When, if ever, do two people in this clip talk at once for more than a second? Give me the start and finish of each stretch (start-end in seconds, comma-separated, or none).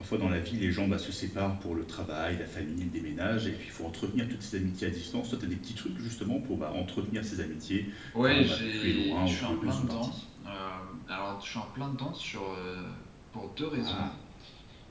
8.2-10.2